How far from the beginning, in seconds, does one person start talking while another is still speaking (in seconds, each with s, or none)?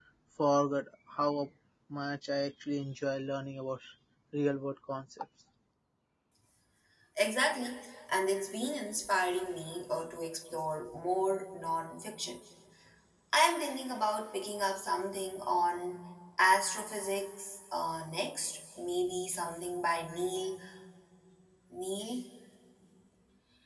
none